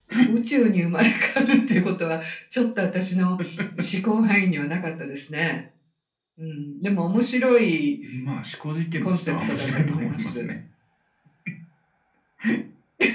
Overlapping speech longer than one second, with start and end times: 9.0-10.5

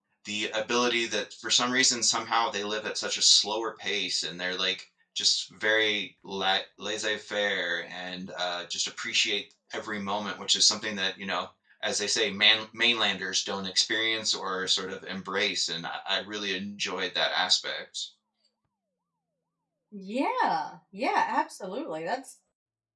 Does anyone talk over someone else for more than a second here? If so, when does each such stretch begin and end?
none

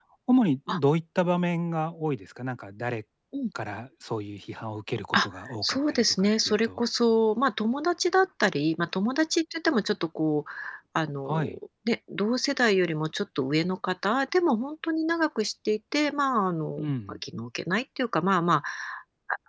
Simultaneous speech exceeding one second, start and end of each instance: 5.1-6.8

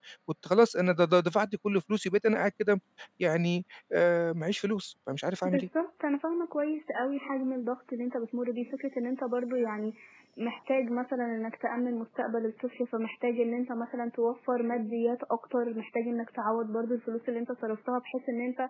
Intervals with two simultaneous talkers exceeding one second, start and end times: none

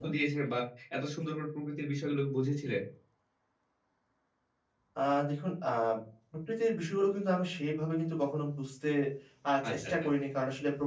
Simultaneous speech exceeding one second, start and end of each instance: none

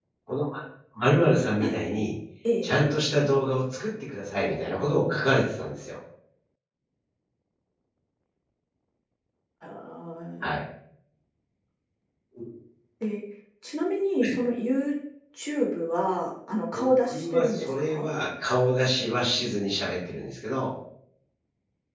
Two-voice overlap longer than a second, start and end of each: 16.7-18.1

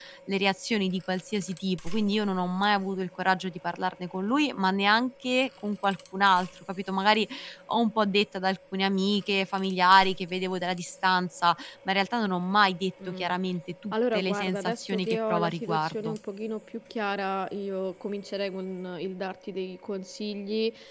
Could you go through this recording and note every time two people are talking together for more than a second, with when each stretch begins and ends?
13.9-16.2

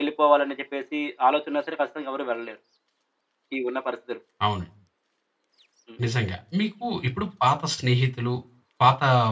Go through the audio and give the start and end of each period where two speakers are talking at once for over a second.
none

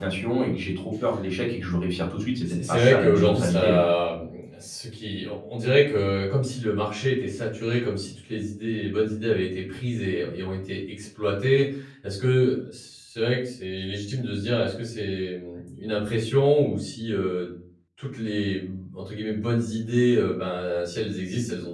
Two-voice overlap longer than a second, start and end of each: 2.5-3.8

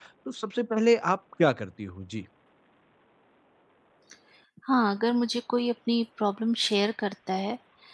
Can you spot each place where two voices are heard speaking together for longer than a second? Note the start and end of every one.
none

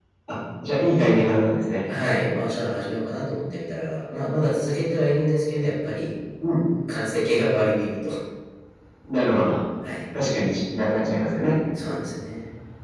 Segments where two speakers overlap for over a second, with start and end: none

